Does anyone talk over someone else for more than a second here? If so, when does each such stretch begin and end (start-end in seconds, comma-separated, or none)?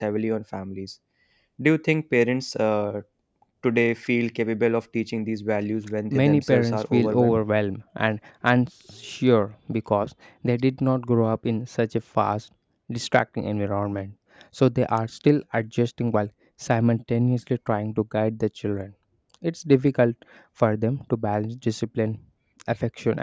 6.1-7.4